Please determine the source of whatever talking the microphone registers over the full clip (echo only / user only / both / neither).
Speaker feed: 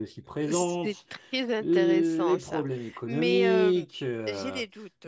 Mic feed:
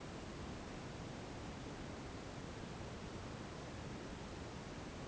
neither